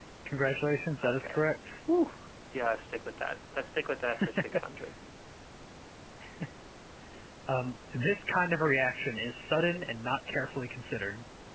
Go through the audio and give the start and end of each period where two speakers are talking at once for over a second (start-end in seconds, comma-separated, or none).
none